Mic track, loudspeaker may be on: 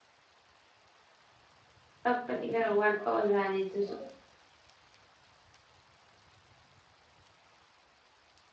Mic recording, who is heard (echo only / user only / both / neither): user only